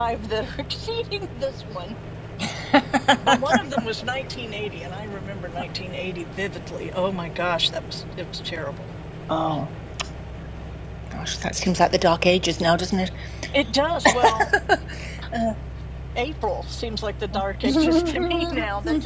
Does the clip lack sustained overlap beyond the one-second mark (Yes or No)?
No